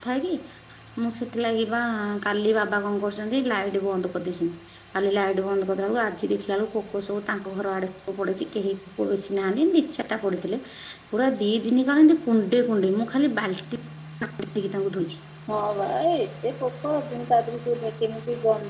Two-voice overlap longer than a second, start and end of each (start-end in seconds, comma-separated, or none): none